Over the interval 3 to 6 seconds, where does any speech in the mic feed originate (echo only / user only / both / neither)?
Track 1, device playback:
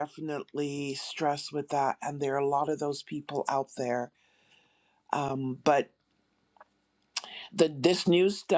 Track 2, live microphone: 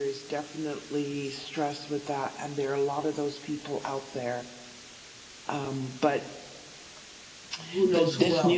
echo only